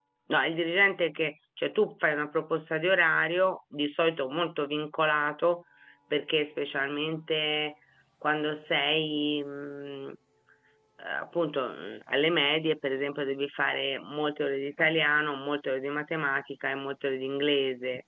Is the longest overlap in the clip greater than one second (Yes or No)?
No